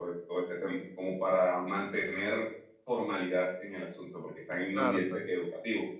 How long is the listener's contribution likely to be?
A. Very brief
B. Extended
A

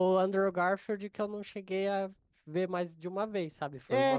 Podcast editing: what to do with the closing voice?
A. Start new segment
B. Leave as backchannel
A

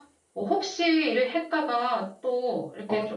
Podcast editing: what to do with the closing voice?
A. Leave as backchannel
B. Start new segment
B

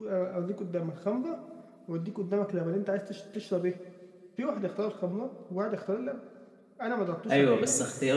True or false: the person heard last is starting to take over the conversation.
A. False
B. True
B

